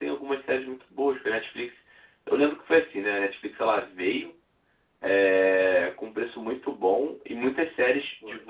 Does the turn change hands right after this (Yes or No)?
No